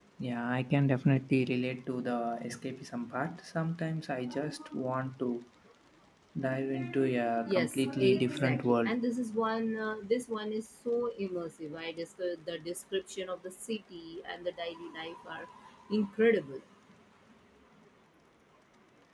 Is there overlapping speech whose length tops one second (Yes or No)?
Yes